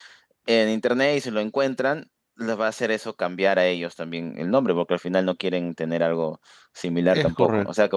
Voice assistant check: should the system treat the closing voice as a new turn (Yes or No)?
No